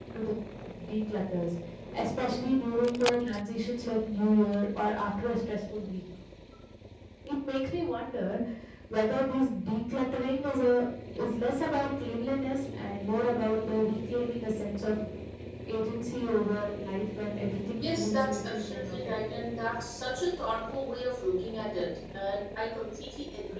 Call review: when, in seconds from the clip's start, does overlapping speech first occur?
17.8 s

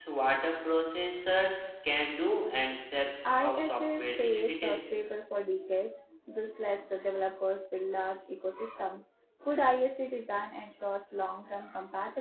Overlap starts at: 3.2 s

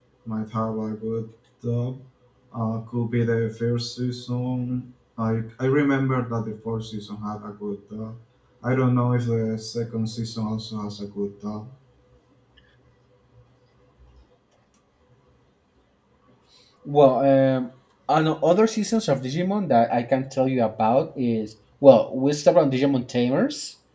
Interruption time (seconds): none

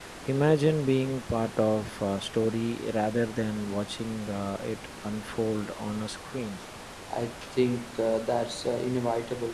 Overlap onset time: none

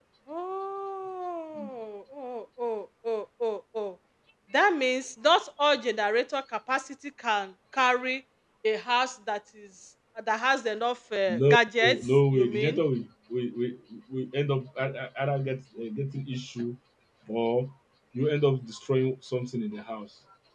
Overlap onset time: 11.3 s

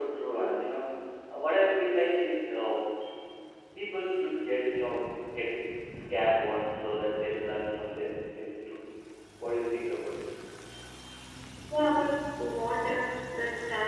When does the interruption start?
none

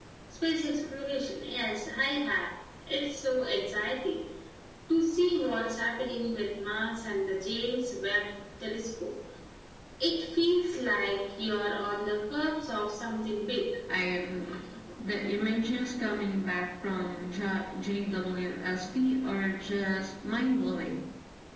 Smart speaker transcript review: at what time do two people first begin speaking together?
none

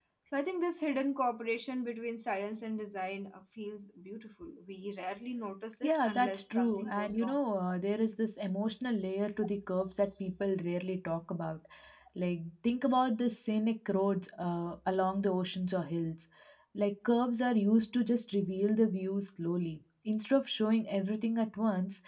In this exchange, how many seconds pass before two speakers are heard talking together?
5.8 s

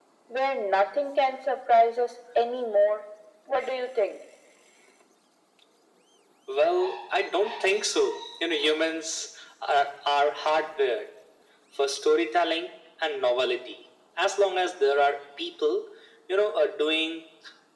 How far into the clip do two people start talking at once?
none

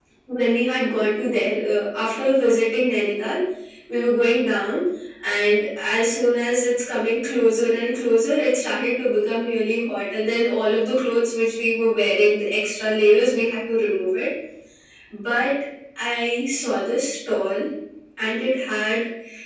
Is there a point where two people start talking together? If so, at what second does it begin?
none

